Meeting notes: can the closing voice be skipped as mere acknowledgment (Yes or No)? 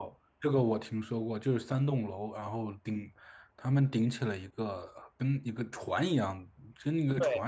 Yes